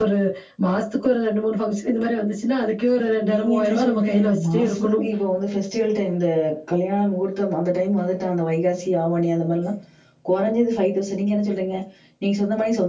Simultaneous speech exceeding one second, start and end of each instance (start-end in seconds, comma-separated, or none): 3.2-5.0